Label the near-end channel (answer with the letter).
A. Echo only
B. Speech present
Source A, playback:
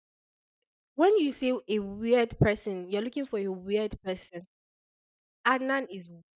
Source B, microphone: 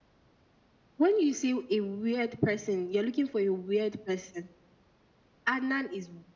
A